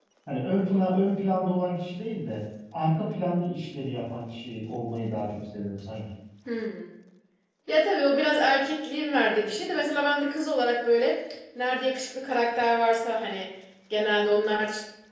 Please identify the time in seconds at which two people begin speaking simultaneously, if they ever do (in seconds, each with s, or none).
none